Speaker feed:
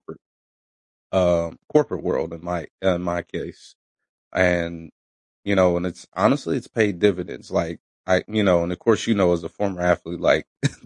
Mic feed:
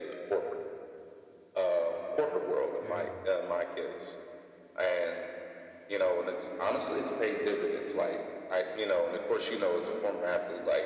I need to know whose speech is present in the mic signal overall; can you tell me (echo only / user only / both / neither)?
both